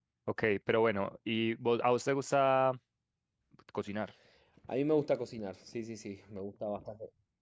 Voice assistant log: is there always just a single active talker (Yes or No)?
Yes